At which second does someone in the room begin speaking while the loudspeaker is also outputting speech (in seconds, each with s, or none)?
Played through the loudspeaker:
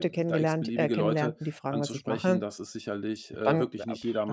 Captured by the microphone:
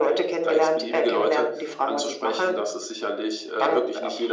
none